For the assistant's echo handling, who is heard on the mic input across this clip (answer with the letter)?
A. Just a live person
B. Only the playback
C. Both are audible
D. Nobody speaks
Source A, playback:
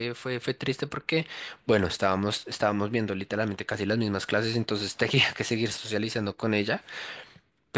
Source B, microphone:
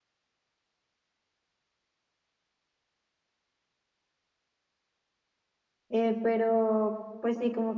A